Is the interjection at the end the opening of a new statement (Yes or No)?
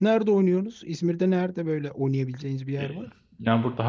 Yes